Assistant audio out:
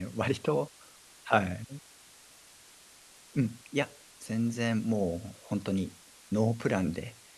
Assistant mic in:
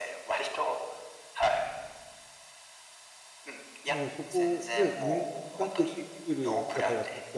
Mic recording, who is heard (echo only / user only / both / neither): both